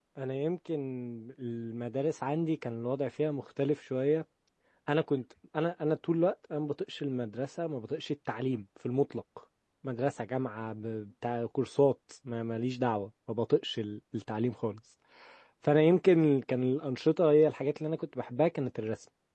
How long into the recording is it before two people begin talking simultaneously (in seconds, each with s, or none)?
none